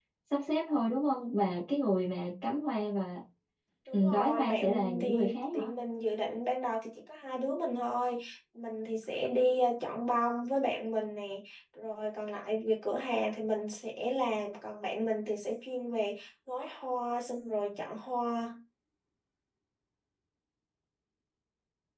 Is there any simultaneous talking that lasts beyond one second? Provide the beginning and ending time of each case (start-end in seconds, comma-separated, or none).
3.9-5.7